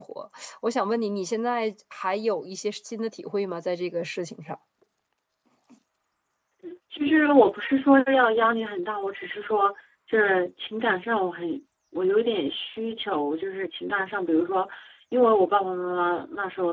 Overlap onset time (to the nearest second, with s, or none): none